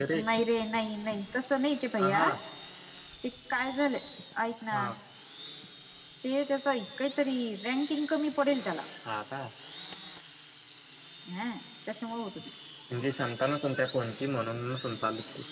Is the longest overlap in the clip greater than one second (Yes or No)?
No